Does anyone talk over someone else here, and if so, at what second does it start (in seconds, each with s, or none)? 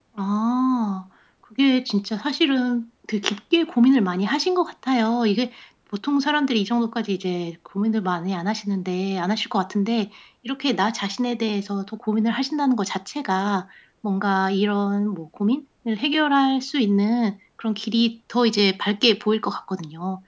none